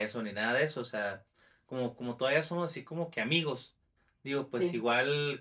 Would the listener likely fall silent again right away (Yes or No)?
Yes